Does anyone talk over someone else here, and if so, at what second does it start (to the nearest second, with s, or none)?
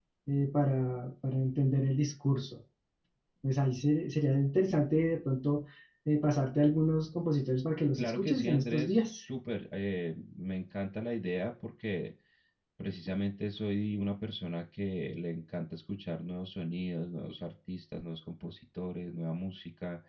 8 s